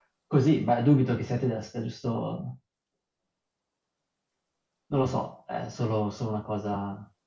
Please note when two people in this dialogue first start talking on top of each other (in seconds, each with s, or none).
none